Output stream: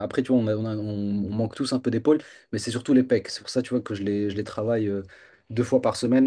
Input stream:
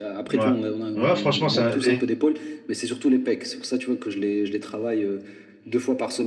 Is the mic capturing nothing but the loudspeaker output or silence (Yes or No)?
No